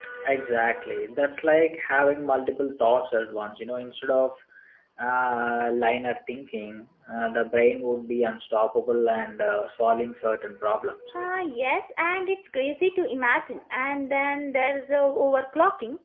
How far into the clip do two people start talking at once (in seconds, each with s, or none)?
none